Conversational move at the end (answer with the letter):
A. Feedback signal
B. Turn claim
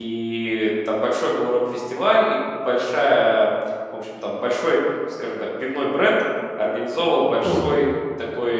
A